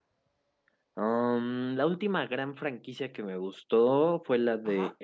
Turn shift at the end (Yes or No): No